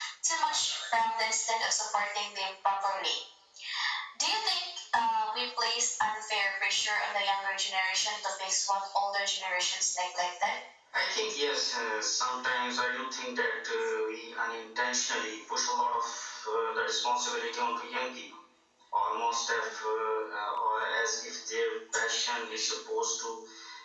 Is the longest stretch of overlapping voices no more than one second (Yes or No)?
Yes